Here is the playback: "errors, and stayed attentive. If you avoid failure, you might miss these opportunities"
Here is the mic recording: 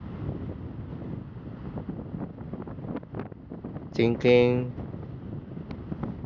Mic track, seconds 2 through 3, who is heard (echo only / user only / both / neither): neither